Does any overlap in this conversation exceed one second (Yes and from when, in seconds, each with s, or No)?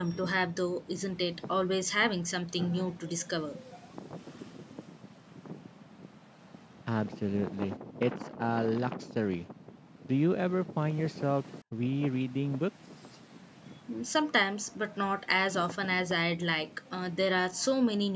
No